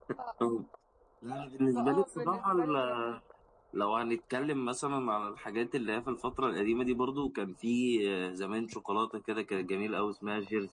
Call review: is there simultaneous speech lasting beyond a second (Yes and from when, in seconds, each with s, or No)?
Yes, from 1.8 s